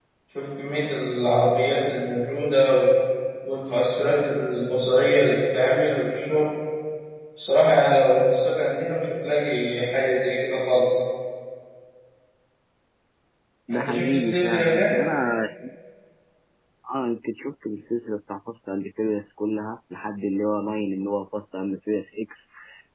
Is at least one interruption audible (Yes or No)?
Yes